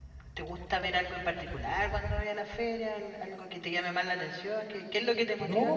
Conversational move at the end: taking over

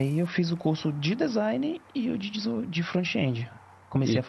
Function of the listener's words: taking over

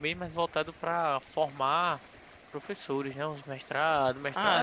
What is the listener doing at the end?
listening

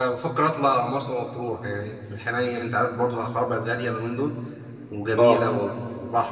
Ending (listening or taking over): listening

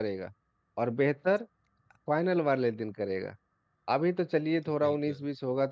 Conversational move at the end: listening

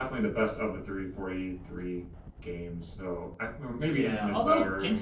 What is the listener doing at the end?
taking over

